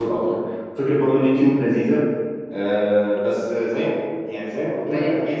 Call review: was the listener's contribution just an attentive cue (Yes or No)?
No